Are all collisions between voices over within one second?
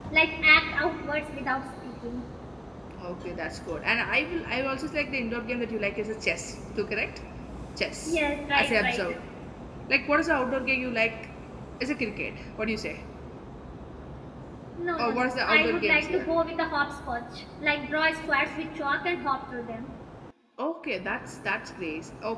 No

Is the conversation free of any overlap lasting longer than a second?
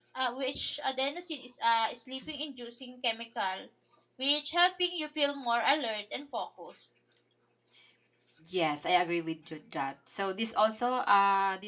Yes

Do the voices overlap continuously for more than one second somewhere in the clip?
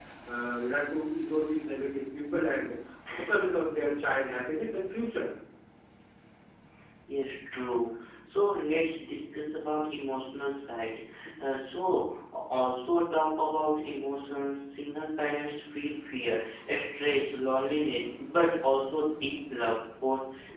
No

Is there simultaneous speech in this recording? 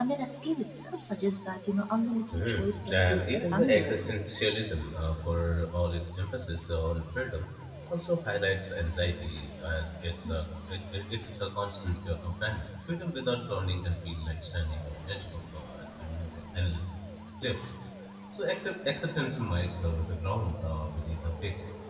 Yes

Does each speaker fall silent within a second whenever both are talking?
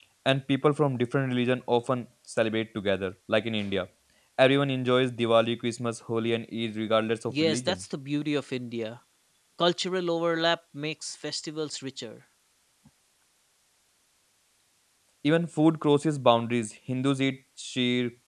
Yes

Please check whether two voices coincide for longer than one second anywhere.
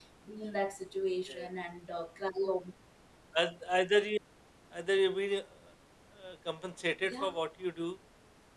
No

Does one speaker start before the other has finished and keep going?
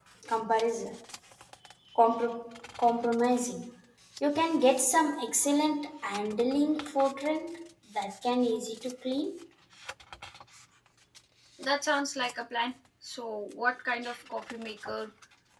No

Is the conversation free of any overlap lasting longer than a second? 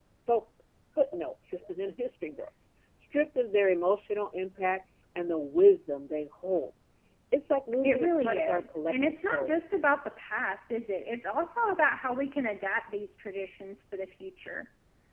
No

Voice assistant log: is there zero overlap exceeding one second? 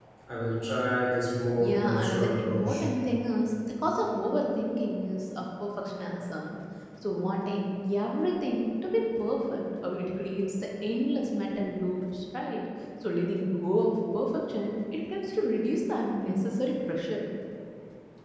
No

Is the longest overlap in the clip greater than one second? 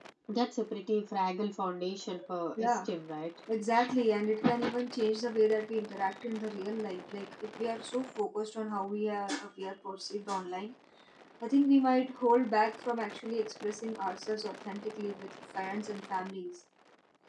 No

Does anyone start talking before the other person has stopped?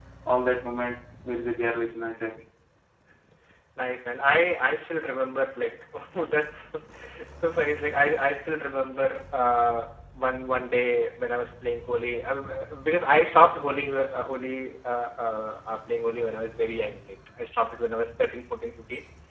No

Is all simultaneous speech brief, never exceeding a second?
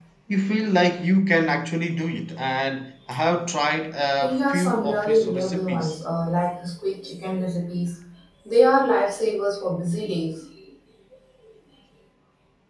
No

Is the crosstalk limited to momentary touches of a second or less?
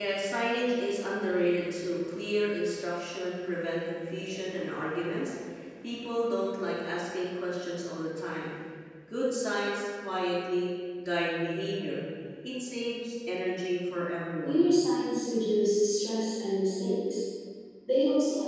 Yes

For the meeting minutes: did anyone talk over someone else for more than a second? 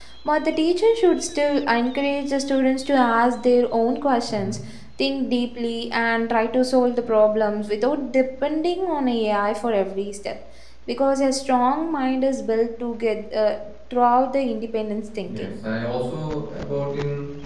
No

